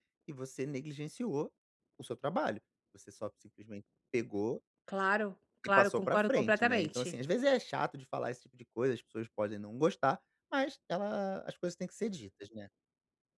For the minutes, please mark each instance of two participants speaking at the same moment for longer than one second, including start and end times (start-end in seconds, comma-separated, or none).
5.8-7.1